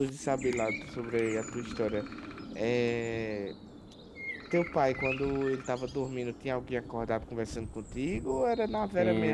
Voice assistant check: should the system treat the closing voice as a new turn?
Yes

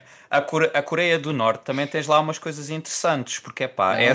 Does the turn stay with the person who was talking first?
No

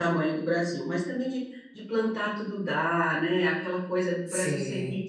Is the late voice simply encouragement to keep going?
Yes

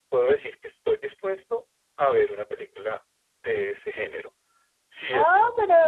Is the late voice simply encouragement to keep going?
No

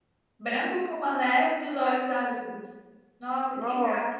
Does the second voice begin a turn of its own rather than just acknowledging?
No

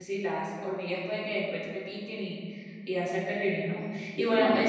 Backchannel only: Yes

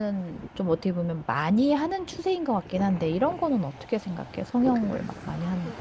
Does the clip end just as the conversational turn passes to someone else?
Yes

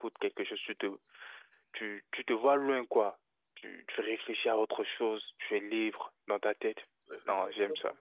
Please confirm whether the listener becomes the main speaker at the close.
Yes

